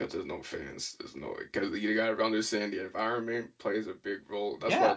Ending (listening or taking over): taking over